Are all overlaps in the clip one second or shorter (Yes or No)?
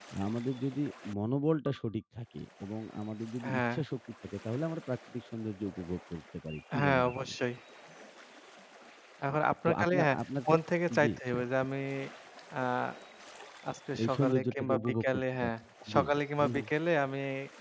No